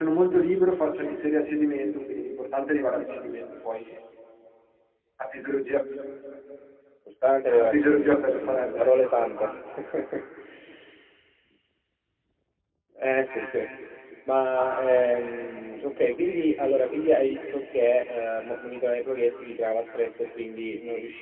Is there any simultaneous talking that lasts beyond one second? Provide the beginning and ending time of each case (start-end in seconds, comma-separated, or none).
7.6-9.0